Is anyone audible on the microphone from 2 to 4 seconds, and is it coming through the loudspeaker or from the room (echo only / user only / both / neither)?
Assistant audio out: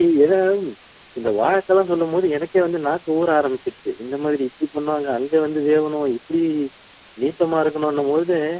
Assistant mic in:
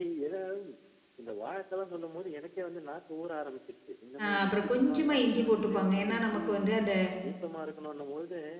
echo only